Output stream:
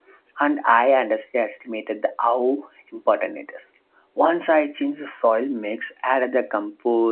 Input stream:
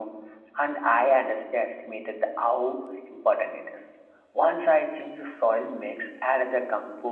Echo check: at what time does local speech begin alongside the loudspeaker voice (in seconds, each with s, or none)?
none